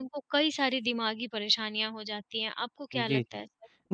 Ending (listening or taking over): taking over